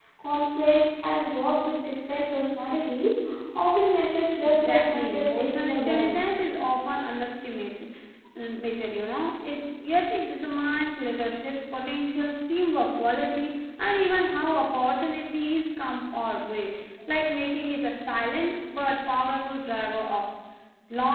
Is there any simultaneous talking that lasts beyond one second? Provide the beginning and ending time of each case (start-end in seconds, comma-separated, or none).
4.4-6.2